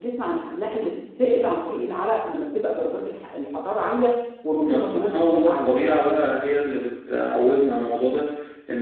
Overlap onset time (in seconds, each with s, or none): 4.6 s